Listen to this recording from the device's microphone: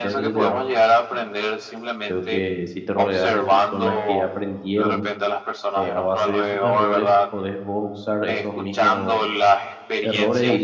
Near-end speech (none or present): present